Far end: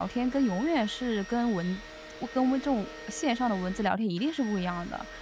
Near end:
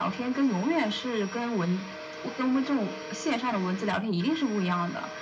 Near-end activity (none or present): none